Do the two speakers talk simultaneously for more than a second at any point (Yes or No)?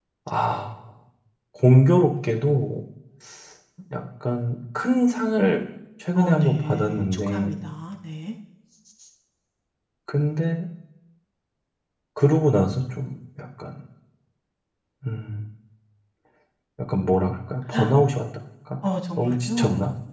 Yes